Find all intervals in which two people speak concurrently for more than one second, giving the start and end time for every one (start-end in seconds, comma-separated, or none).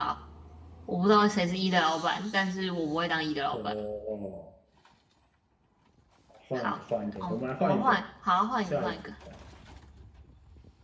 6.5-8.0